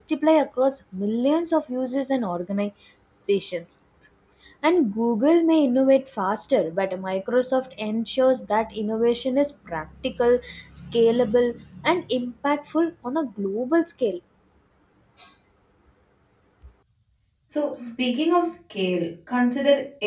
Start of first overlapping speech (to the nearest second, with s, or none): none